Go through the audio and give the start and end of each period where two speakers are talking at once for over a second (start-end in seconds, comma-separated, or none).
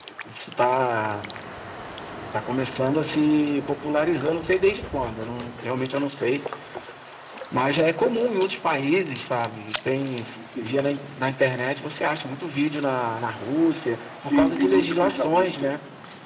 14.2-15.8